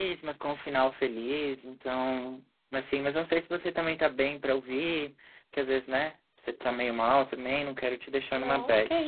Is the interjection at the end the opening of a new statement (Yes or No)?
Yes